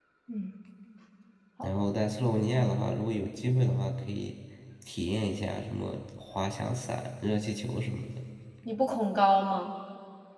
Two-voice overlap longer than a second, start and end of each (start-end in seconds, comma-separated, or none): none